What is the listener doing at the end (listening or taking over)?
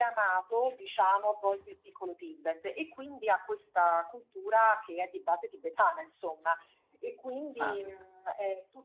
listening